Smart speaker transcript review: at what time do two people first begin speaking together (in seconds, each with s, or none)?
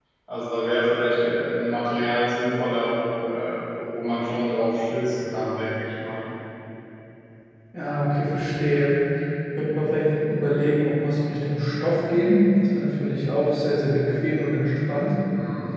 none